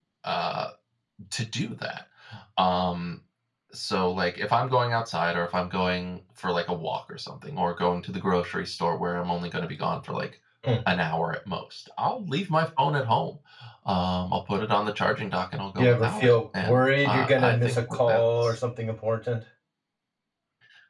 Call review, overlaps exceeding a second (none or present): present